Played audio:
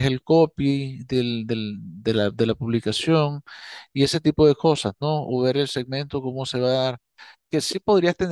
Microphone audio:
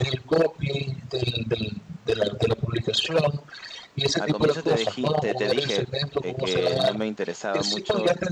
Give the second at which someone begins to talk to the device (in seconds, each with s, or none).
4.2 s